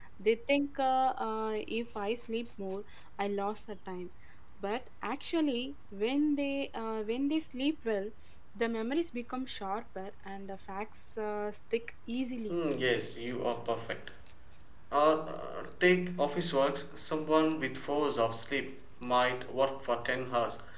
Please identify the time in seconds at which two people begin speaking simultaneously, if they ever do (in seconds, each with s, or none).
none